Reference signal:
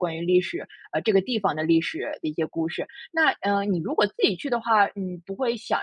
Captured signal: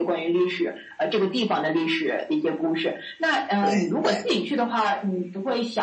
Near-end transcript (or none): 对对。